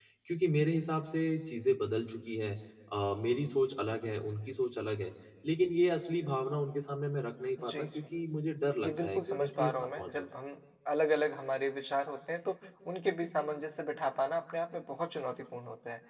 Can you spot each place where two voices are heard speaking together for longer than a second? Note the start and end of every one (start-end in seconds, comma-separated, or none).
8.8-10.3